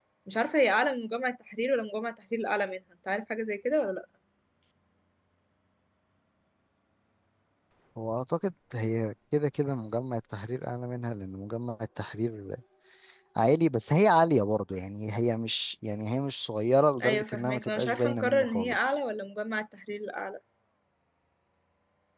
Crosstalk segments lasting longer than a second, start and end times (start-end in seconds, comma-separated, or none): 17.0-19.0